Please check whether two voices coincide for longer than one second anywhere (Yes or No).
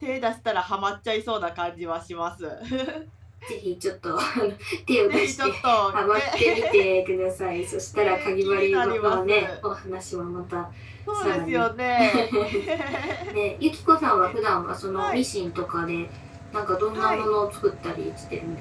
Yes